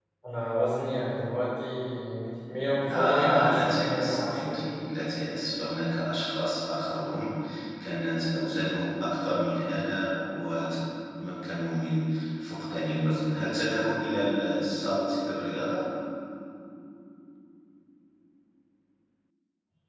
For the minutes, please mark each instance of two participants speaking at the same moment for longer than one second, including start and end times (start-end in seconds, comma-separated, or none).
2.9-4.8